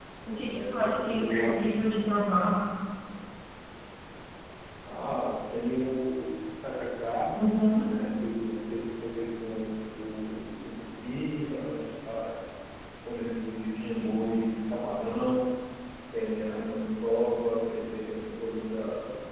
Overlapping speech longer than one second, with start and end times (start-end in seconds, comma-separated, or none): 0.6-1.8